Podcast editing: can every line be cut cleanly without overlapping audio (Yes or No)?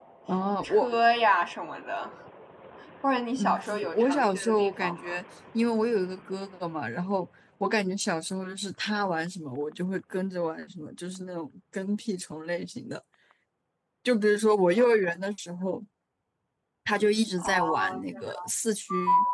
No